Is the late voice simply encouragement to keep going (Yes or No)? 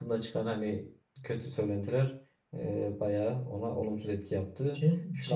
No